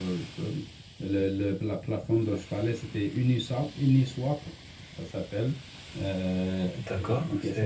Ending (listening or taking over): taking over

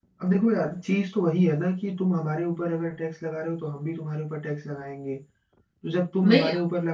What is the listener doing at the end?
listening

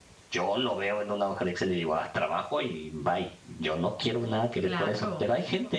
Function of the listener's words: listening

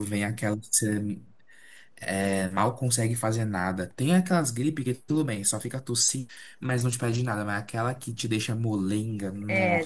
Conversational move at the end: taking over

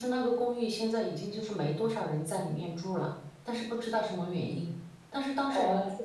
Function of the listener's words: listening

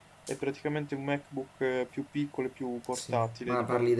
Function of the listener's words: taking over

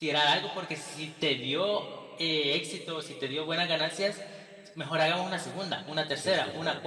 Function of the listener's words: listening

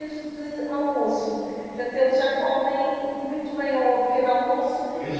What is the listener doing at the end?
taking over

